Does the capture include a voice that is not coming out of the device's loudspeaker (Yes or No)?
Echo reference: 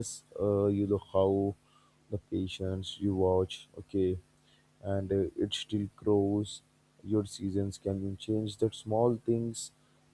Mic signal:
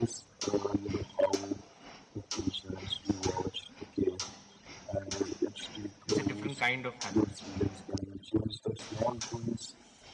Yes